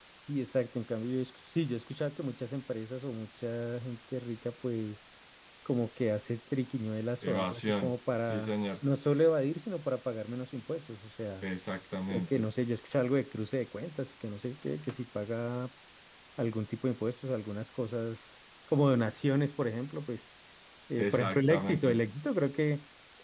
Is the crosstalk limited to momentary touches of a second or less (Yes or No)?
No